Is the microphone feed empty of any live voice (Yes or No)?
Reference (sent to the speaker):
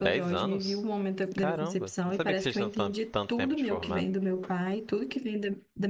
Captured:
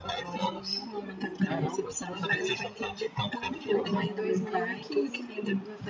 No